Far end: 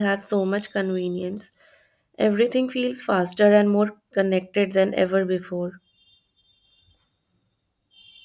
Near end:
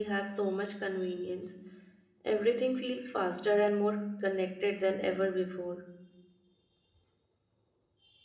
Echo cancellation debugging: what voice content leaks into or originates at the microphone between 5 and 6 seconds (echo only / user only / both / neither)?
echo only